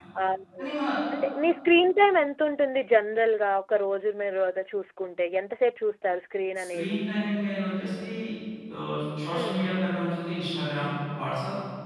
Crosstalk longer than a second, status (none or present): none